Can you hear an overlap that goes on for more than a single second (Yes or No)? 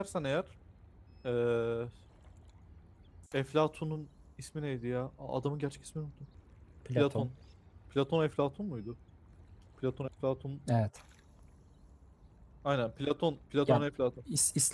No